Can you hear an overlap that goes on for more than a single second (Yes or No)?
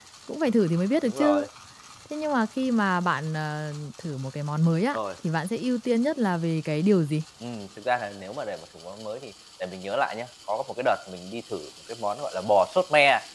No